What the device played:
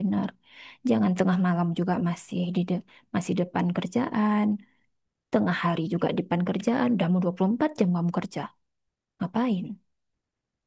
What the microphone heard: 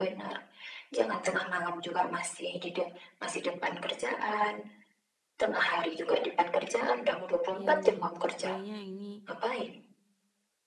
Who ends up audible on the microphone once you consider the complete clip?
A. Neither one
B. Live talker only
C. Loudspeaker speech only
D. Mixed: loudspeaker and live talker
D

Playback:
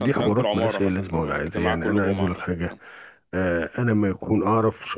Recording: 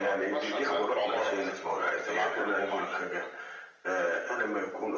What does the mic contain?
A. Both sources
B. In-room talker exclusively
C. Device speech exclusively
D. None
C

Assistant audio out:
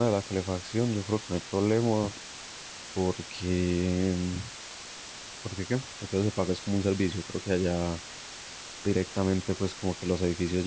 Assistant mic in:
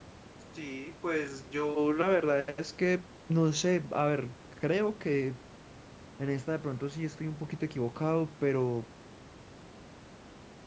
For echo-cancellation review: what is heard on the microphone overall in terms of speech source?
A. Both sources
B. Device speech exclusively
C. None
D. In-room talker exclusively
D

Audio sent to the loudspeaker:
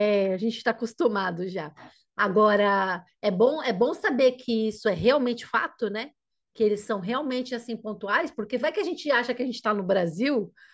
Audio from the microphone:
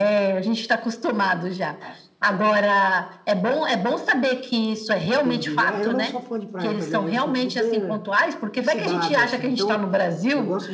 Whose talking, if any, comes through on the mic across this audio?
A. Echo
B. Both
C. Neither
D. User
B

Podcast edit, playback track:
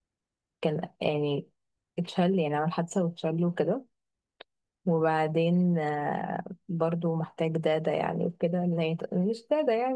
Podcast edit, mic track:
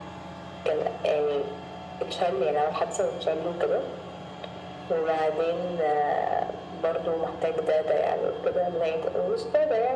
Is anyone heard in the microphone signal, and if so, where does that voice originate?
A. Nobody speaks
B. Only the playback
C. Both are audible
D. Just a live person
B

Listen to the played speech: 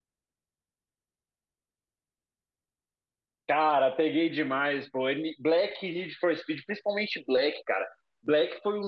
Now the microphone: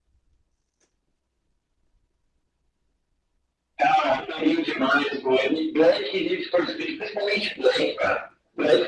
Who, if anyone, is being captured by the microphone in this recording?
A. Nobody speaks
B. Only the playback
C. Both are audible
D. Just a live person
B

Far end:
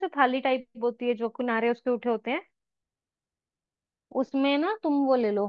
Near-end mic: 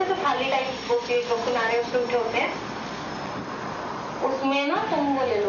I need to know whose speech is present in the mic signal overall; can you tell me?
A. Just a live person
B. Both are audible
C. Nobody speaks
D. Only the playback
D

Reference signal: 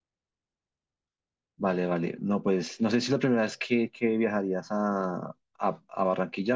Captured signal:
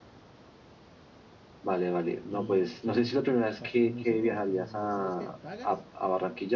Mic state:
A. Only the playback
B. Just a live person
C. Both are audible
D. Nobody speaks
C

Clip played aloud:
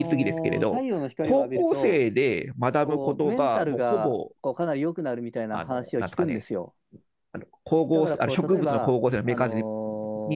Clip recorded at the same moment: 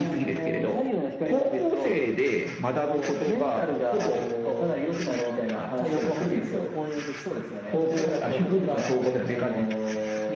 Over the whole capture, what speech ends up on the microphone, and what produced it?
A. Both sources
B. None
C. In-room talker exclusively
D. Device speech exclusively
A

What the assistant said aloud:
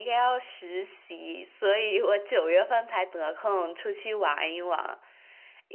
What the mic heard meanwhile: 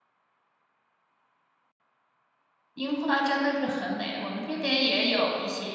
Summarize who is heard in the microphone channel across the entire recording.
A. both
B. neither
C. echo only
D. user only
D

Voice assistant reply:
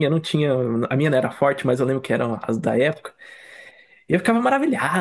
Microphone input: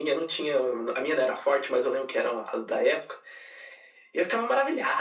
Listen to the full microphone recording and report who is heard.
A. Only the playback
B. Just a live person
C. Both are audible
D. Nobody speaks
A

